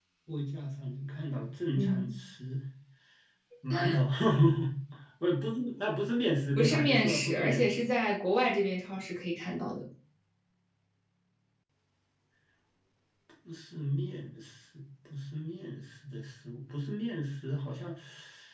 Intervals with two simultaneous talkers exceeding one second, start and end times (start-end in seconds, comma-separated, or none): 6.6-7.8